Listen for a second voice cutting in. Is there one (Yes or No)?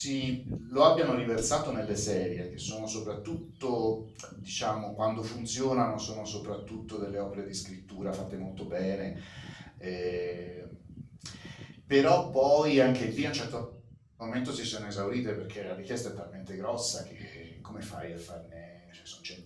No